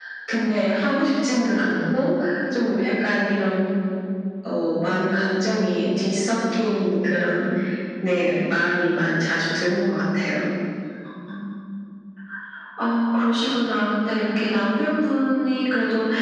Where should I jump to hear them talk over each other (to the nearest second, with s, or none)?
none